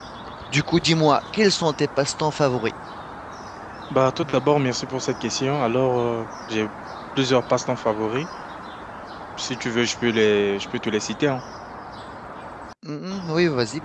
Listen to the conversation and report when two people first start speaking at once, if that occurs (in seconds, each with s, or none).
none